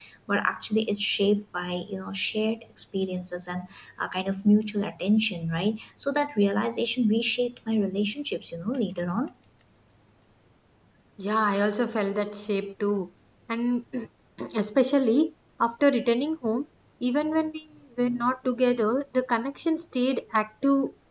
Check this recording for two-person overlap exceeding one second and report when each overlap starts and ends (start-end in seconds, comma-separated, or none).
none